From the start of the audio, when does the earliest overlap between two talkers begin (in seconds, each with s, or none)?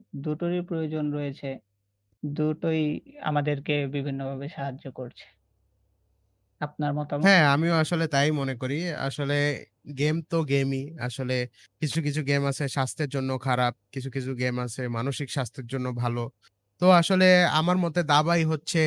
none